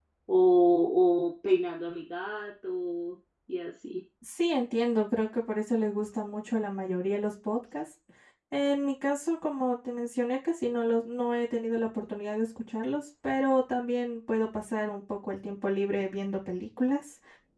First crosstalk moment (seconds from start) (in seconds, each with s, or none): none